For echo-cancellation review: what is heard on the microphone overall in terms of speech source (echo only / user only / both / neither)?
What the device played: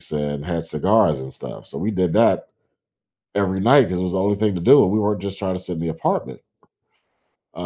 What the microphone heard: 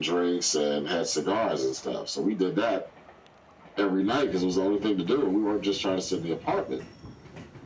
echo only